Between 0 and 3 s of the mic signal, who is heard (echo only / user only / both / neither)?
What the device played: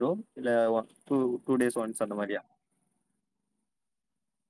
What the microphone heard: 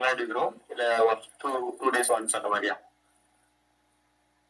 echo only